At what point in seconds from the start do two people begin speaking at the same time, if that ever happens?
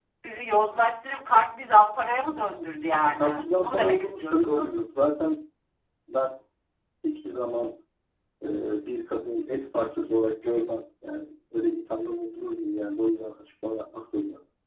3.2 s

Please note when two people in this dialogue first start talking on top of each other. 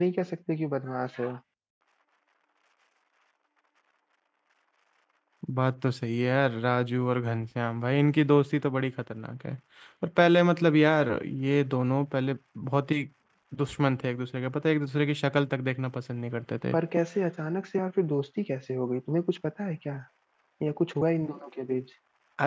none

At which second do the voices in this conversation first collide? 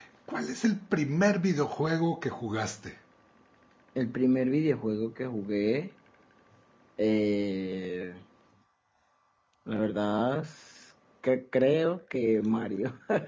none

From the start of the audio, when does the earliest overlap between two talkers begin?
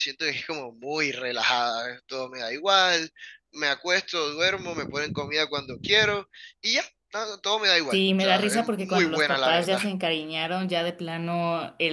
7.9 s

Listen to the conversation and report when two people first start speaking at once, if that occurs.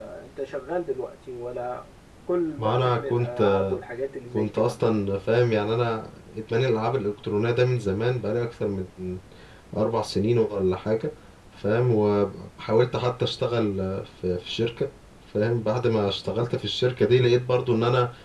2.6 s

